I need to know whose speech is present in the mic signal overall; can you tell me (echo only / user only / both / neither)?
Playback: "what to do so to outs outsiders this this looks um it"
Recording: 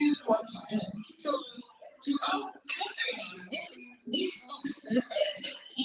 echo only